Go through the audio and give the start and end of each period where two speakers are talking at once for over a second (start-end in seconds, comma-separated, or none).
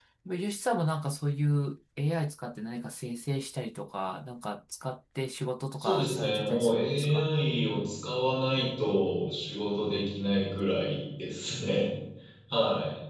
5.8-7.3